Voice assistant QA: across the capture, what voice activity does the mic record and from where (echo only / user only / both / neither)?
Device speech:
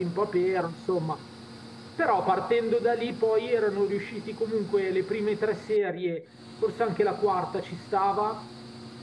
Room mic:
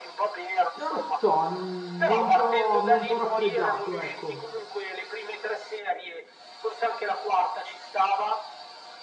both